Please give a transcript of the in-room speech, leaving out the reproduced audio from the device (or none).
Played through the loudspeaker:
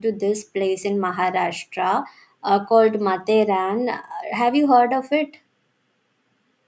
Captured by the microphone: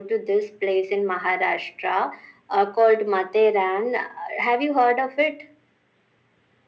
none